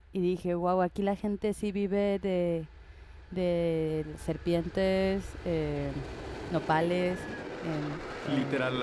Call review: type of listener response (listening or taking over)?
taking over